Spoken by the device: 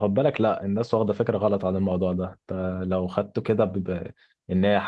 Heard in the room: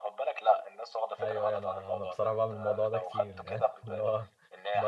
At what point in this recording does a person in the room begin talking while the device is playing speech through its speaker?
1.2 s

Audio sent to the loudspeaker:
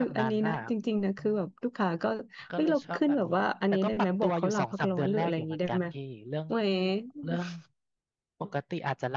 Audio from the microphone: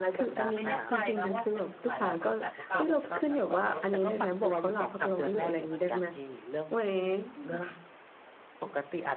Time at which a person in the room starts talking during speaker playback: 0.5 s

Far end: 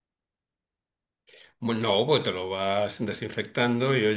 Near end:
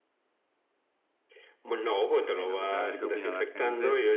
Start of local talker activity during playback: 2.3 s

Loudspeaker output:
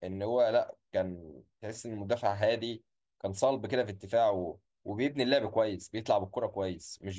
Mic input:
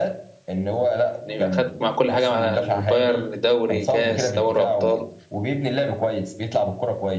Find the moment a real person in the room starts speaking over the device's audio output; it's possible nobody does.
1.2 s

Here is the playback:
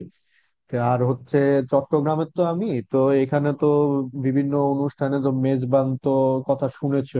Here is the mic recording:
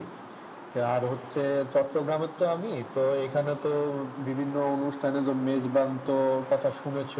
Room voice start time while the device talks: none

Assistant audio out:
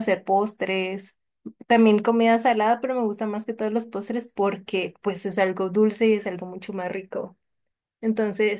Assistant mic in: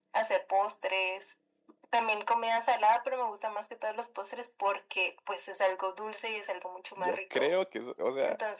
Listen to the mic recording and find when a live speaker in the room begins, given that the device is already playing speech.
6.9 s

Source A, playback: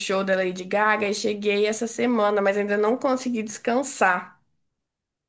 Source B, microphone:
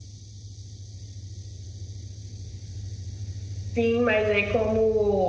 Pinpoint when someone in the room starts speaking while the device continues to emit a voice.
3.8 s

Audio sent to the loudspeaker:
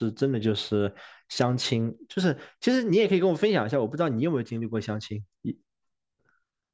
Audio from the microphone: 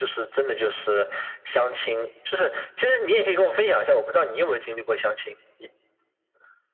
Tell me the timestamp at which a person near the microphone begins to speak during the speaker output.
none

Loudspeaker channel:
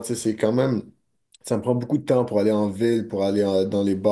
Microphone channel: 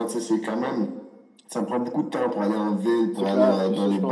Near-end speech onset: 3.1 s

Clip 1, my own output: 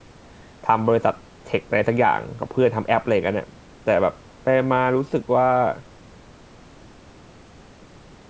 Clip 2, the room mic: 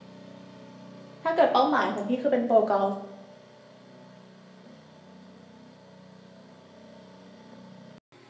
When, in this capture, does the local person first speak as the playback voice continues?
1.2 s

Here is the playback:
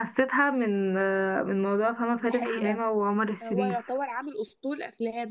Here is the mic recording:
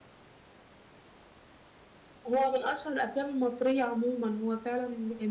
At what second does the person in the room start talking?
2.3 s

